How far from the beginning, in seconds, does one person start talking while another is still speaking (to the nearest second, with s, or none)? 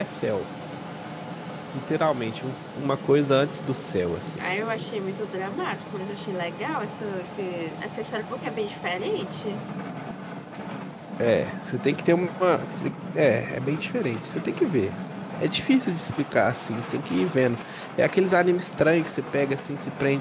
none